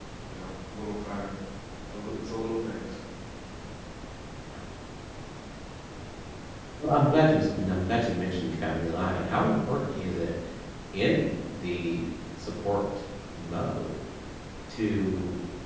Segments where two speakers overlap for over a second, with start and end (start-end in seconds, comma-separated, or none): none